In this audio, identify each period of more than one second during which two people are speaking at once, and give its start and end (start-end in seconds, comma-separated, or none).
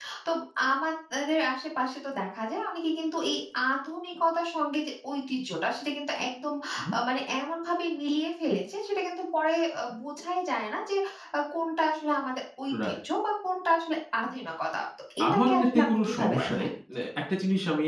15.3-16.7